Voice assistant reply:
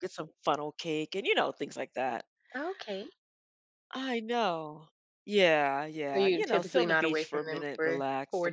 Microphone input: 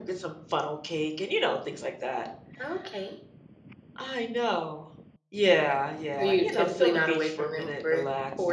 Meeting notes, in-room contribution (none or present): none